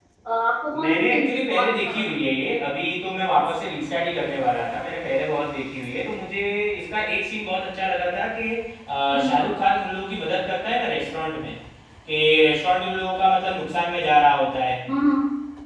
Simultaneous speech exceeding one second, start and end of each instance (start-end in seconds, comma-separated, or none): 0.8-2.1